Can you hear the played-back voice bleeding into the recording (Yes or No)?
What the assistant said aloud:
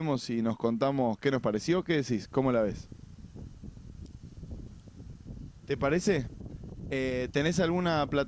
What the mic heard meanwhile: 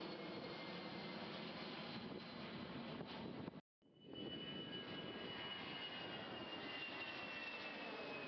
No